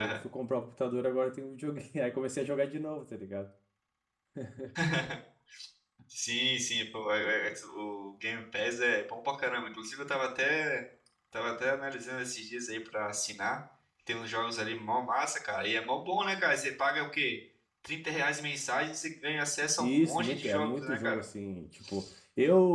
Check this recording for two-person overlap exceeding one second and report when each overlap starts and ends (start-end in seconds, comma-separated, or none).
19.8-21.2